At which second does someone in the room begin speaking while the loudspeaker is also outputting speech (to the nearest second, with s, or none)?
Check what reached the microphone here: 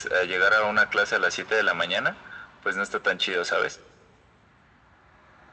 none